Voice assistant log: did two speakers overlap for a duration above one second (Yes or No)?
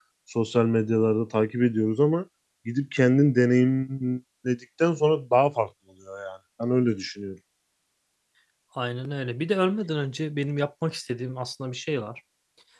No